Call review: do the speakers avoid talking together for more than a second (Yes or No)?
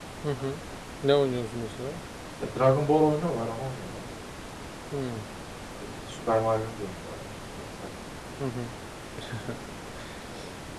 Yes